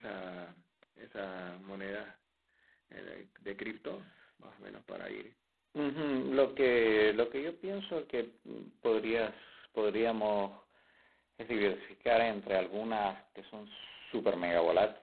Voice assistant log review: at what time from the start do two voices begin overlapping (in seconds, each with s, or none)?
none